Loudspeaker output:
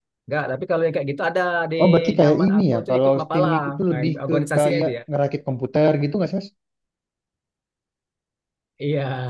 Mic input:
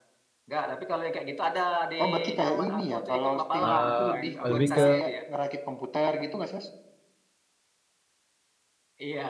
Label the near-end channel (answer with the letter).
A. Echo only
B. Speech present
B